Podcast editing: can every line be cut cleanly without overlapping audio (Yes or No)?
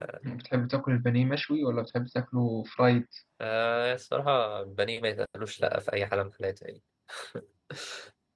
Yes